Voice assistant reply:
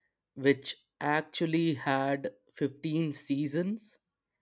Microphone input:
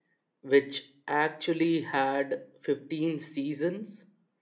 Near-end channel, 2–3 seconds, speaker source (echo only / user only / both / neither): echo only